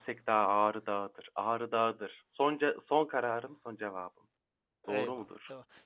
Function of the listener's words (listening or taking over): taking over